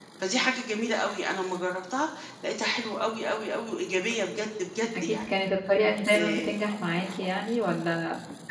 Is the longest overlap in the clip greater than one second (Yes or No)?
No